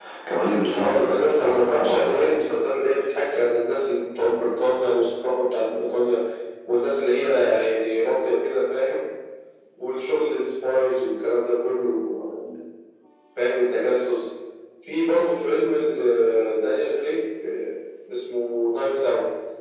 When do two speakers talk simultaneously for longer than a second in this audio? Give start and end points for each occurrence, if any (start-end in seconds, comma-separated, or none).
0.8-2.4